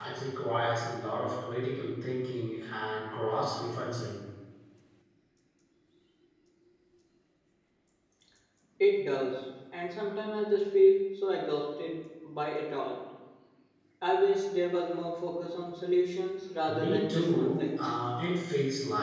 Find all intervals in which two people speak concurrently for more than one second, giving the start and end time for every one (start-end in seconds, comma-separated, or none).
16.7-18.0